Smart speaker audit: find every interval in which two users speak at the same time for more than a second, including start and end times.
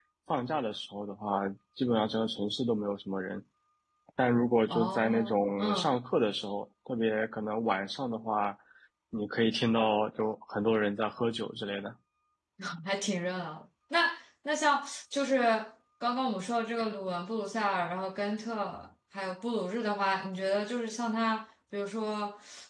4.7-6.0

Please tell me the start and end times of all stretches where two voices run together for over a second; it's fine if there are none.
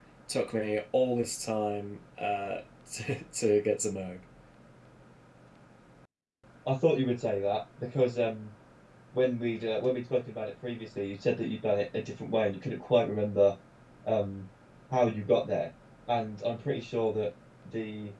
none

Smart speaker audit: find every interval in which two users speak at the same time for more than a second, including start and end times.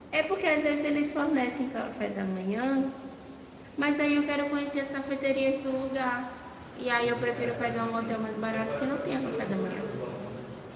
7.0-9.9

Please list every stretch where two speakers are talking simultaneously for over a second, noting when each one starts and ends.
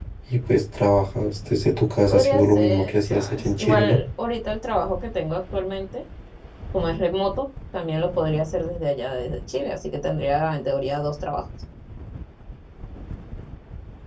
2.1-4.0

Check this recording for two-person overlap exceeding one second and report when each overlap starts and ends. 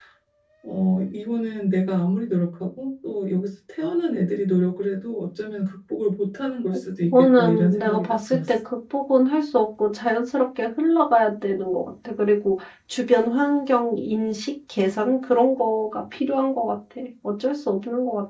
7.0-8.5

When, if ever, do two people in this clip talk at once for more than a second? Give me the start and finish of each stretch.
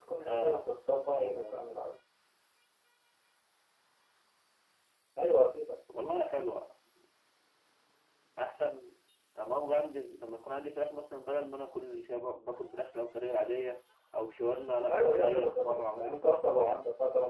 14.9-16.8

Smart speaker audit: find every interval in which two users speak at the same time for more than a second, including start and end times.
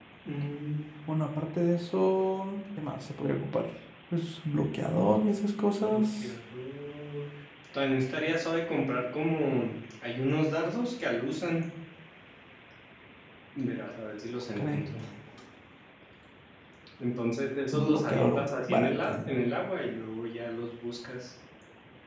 17.7-19.2

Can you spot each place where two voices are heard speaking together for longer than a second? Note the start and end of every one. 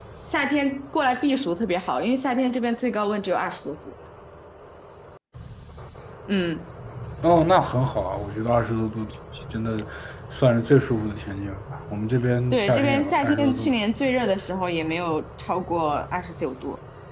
12.5-13.7

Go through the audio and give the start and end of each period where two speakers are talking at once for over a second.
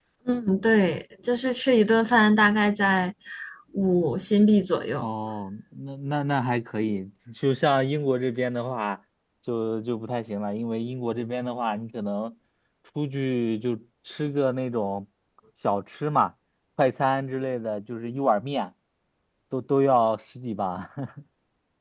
none

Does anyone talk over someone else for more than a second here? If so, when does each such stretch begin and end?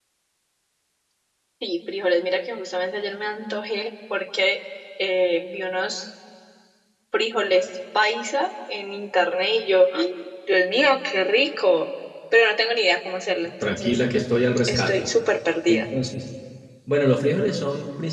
none

